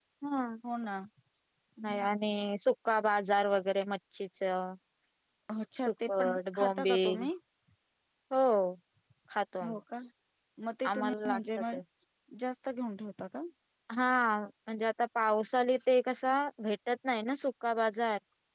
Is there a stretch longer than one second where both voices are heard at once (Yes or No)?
Yes